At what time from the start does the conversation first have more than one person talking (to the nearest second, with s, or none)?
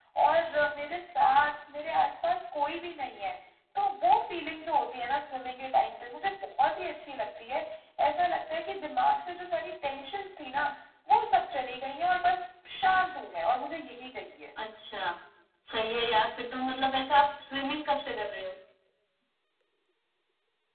none